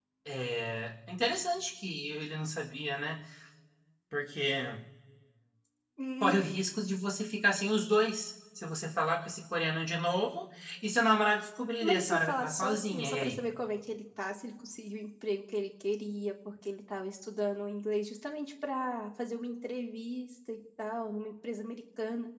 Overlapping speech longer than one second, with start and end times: 11.8-13.4

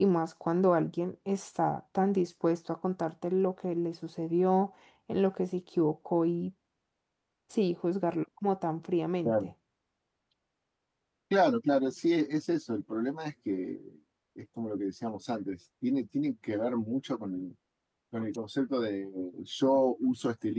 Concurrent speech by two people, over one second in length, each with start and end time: none

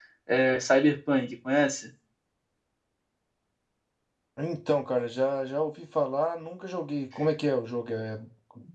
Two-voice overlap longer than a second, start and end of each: none

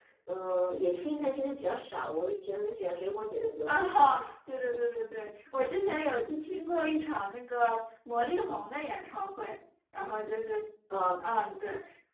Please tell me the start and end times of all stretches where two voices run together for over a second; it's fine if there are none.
none

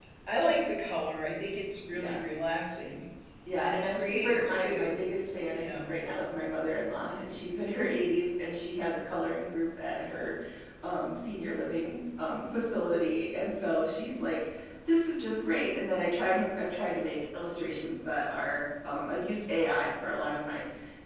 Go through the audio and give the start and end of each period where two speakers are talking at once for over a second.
3.5-5.0

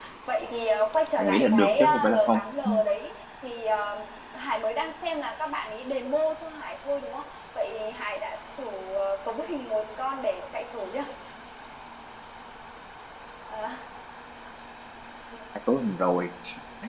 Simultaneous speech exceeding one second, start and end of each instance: 1.2-2.4

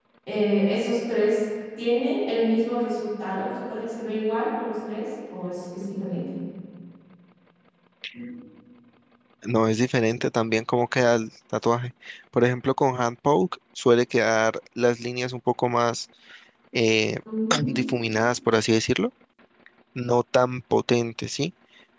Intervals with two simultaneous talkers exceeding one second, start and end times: none

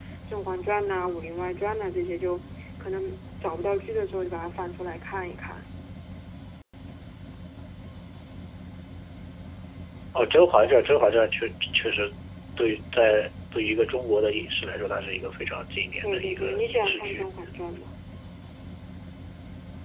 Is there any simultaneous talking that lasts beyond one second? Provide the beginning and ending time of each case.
16.0-17.2

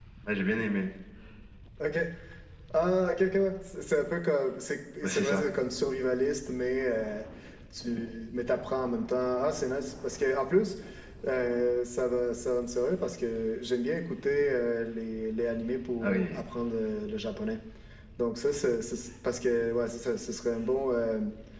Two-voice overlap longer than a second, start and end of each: none

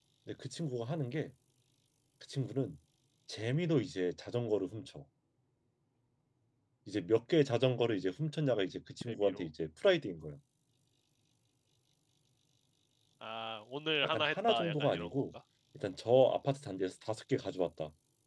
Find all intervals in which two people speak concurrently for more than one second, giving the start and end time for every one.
14.0-15.2

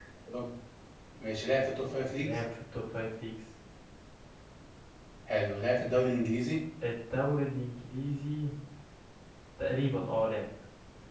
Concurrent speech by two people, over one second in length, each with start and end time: none

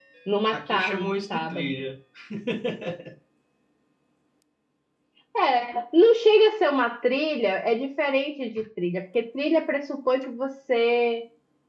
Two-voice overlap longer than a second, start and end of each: 0.5-1.8

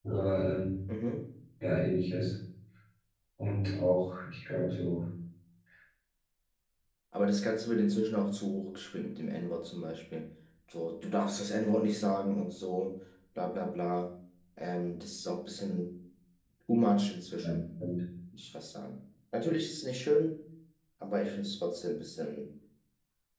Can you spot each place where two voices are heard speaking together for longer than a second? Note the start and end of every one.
none

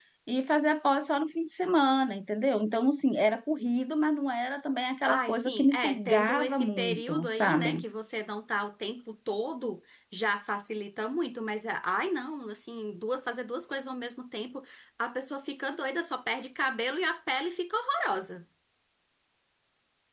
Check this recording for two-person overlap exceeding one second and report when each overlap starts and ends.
5.1-7.8

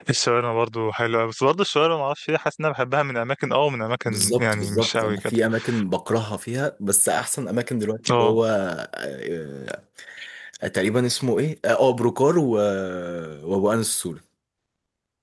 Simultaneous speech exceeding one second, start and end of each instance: 4.0-5.3

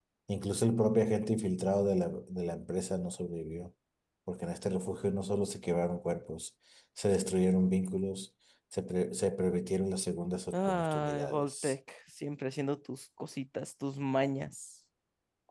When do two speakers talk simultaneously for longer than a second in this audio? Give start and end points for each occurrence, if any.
10.5-11.7

